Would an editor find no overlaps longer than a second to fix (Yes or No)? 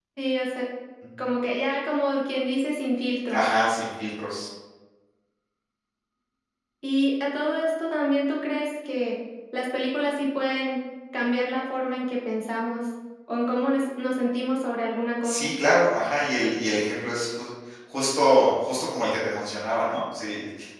Yes